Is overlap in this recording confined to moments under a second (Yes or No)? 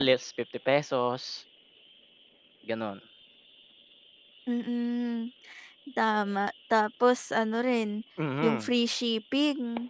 Yes